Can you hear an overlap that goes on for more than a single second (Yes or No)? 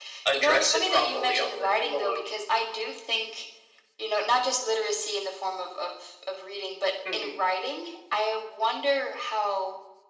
Yes